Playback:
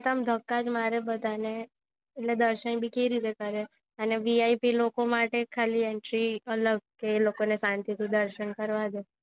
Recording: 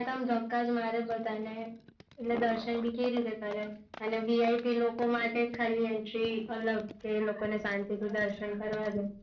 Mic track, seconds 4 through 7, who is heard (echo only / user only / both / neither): echo only